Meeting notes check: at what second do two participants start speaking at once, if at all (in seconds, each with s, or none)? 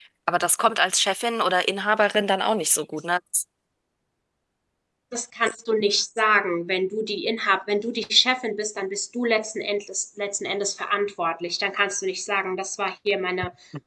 none